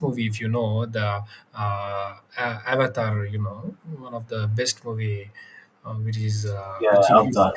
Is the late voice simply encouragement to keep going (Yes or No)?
No